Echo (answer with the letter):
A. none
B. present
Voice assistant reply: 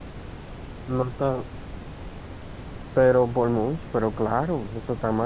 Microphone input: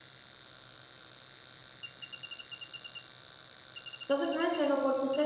A